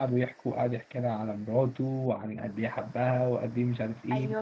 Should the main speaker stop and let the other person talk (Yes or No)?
Yes